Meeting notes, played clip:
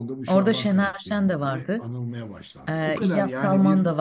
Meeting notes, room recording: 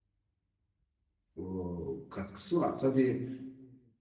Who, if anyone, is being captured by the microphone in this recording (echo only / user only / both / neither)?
user only